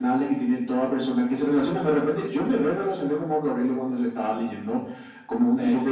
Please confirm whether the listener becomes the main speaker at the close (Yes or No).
No